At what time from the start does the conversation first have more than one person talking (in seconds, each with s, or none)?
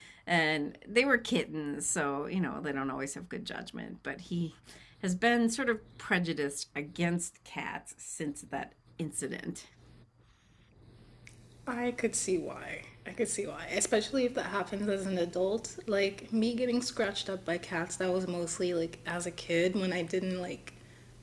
none